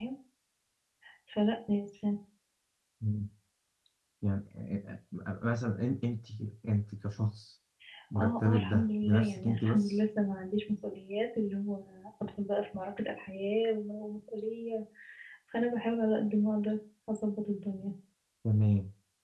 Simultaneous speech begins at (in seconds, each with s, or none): 8.2 s